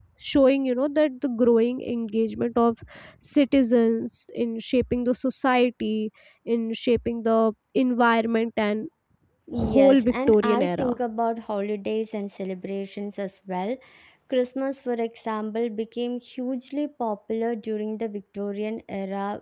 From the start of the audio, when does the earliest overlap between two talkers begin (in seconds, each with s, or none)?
9.5 s